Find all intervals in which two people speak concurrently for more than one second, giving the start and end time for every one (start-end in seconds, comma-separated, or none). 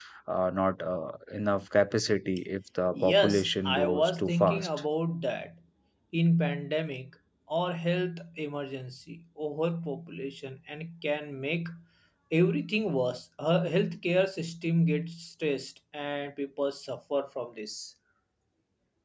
3.0-4.7